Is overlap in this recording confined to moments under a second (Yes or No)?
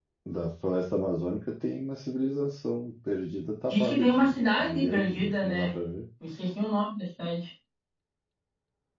No